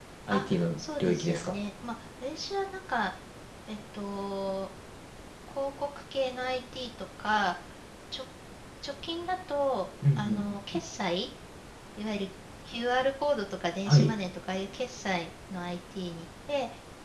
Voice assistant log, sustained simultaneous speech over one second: present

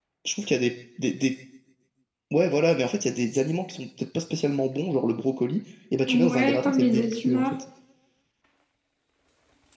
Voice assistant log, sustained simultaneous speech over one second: present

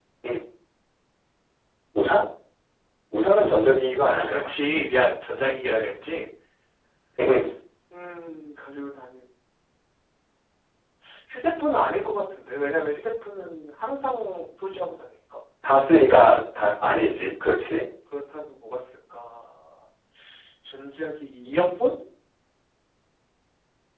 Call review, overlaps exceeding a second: none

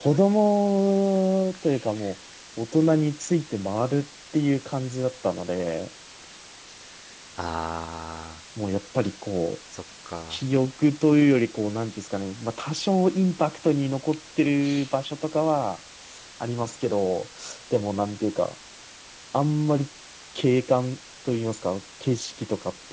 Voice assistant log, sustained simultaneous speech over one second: none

